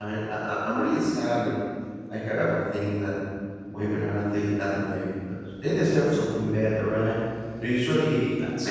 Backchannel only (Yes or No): Yes